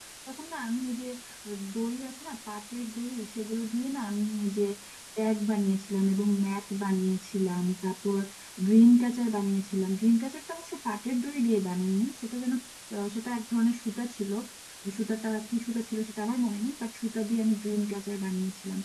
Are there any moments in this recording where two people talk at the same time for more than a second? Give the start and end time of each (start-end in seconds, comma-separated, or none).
none